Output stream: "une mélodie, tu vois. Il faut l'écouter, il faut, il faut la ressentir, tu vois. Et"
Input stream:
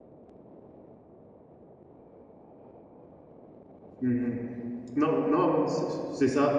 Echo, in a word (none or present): none